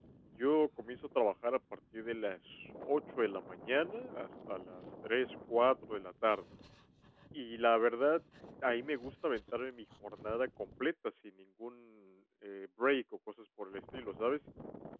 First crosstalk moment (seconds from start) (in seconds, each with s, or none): none